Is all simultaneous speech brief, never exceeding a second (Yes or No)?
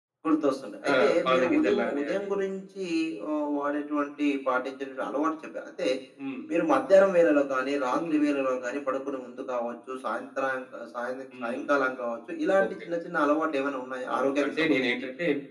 No